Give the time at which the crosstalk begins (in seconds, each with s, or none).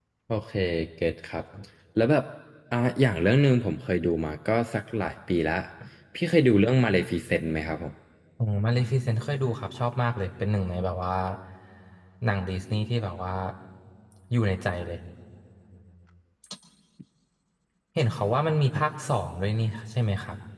none